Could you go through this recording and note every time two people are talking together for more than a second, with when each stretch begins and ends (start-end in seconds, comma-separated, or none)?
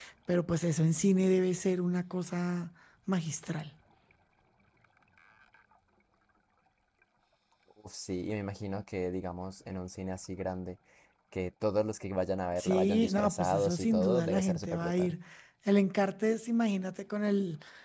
12.6-15.1